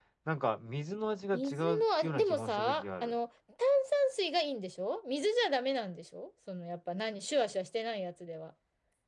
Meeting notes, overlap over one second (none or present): present